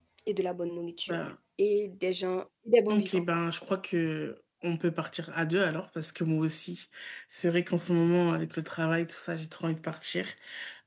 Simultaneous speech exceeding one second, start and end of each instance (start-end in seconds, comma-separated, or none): none